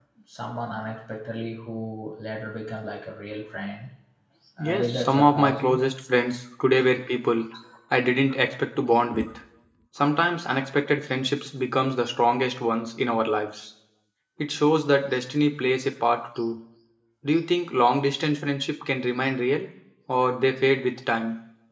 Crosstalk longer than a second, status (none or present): present